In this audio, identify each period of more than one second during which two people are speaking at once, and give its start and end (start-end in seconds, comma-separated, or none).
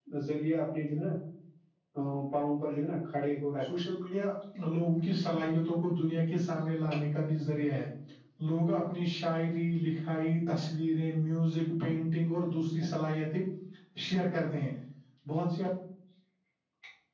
none